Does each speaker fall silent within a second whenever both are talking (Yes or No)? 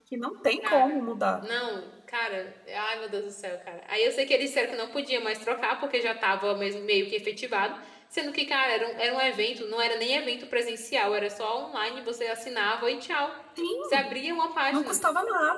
Yes